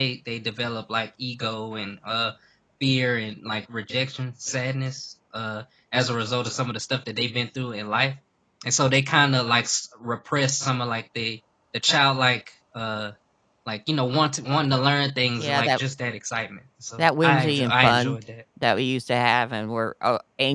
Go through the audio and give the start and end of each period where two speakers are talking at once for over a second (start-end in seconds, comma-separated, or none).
17.0-18.2